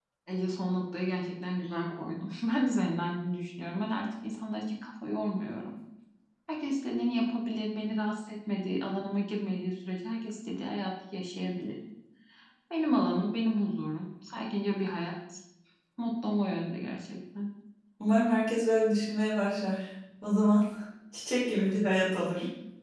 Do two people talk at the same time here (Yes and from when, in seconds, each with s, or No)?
No